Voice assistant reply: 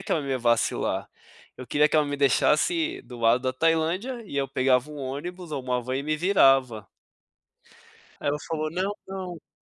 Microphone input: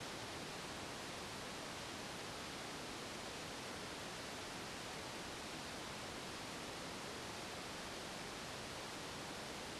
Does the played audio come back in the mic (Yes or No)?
No